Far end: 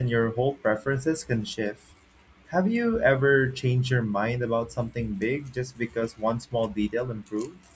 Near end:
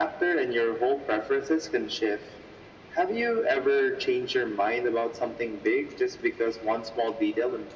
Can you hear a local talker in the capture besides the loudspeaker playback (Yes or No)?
No